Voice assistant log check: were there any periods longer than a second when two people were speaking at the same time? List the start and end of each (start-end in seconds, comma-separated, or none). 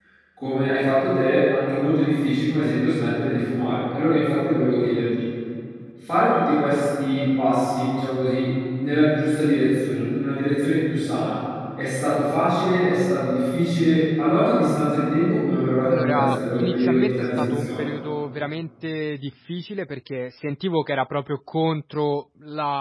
15.9-17.8